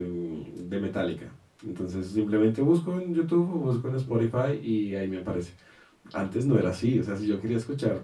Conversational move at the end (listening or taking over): listening